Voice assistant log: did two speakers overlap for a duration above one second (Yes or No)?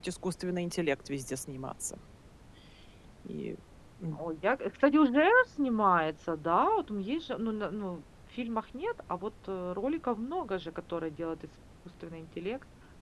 No